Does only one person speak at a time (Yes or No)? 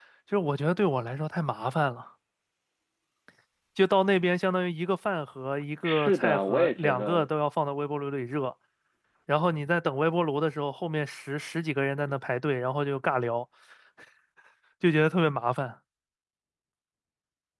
No